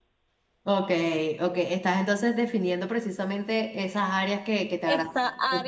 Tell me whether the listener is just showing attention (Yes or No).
No